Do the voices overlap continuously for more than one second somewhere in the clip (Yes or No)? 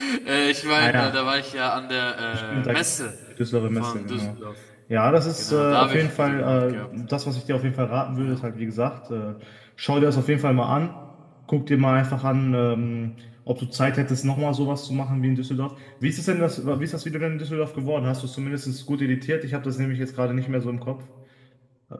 Yes